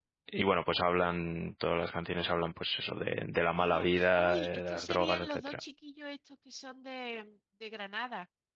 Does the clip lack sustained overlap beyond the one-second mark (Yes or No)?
No